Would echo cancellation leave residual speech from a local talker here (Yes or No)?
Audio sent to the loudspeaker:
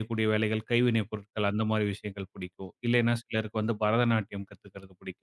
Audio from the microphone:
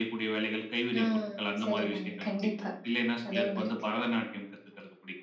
Yes